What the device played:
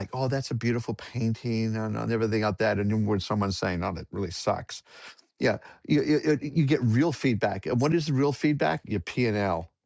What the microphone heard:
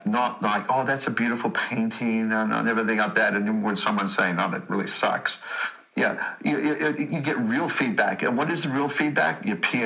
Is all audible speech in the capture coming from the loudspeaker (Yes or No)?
Yes